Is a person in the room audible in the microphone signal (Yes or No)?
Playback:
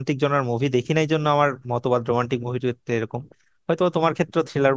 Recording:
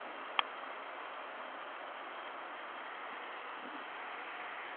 No